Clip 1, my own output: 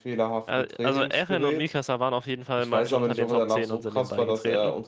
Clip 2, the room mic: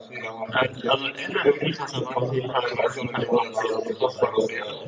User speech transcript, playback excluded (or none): none